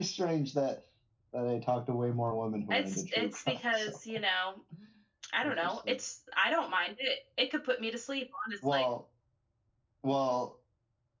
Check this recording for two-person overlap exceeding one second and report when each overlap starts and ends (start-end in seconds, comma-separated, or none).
2.7-3.9